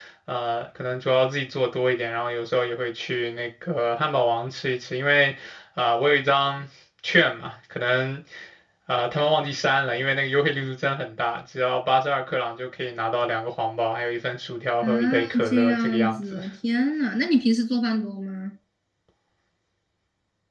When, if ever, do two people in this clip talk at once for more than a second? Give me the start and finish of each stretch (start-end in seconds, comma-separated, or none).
14.8-16.4